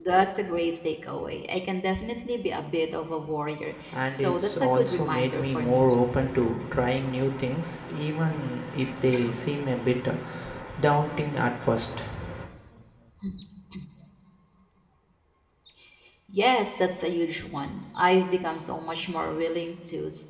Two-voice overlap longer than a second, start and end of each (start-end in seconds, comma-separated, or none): 3.9-5.9